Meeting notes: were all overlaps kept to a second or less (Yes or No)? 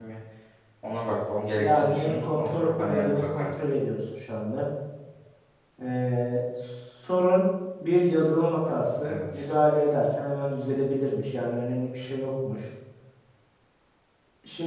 No